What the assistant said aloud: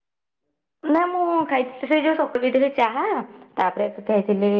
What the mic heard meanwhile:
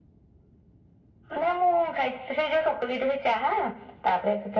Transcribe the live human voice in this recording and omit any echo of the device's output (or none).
none